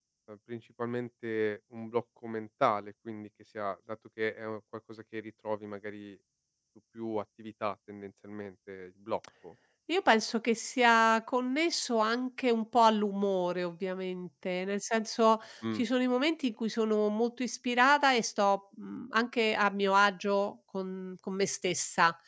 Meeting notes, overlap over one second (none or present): none